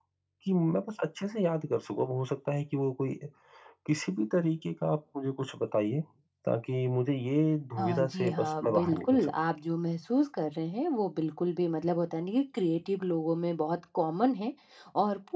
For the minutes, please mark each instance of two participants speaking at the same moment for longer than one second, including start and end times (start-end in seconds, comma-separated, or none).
7.8-9.3